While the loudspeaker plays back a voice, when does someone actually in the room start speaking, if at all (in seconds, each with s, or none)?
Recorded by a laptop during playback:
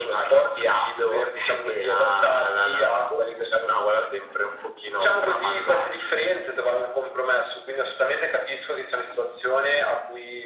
none